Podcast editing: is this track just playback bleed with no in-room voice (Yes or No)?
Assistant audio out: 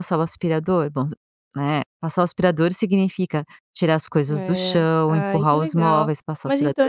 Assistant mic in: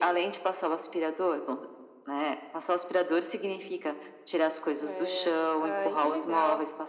Yes